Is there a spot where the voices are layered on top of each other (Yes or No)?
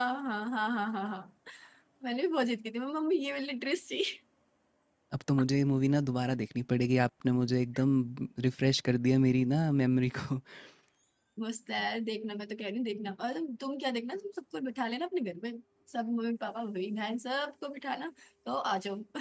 No